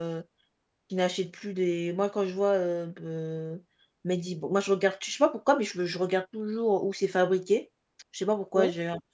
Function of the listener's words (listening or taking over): listening